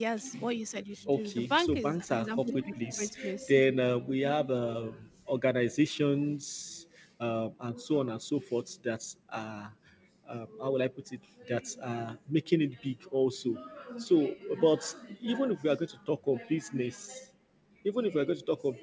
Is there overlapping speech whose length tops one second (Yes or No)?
Yes